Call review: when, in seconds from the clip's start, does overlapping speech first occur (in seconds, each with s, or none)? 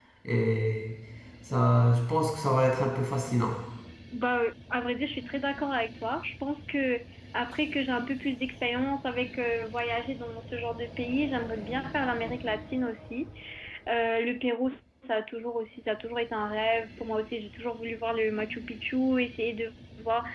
none